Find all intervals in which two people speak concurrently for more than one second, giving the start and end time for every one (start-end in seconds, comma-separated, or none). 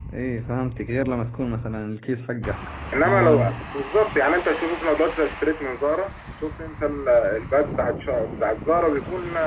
none